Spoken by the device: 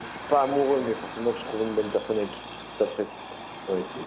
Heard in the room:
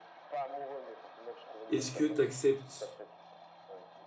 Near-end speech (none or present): present